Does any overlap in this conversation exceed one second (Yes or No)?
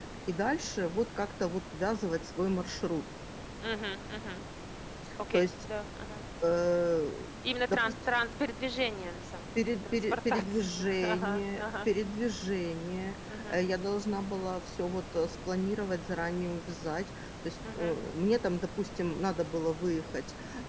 Yes